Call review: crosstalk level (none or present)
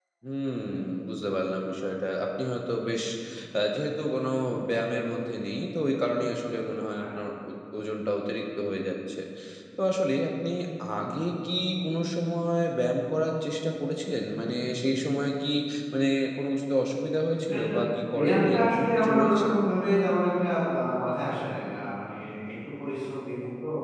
present